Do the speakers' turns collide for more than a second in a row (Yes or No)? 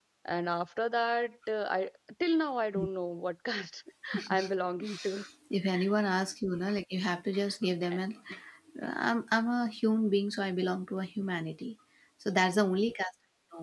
No